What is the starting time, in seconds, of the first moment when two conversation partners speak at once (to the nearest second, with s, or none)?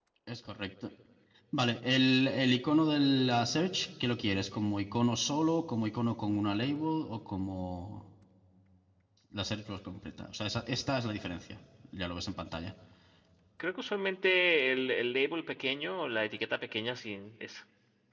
none